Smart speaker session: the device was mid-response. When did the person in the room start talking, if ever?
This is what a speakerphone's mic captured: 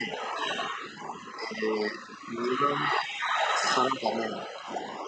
none

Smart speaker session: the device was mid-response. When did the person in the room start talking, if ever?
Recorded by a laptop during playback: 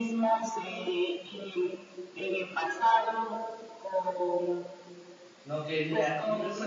5.4 s

